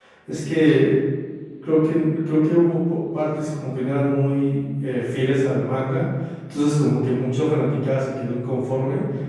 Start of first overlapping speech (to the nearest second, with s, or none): none